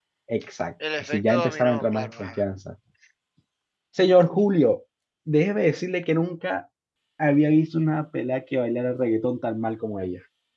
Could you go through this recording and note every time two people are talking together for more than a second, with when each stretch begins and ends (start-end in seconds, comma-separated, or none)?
1.0-2.4